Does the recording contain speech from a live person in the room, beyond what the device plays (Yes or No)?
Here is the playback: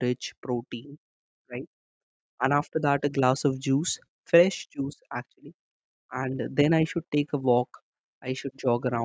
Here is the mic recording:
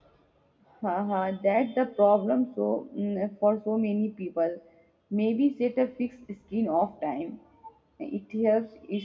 Yes